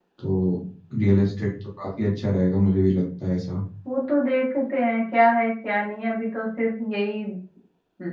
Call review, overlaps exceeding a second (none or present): none